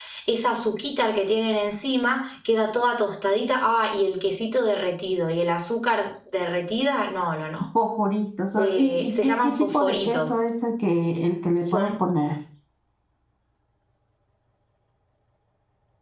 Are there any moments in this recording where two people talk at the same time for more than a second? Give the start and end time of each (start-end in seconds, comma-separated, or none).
8.6-10.4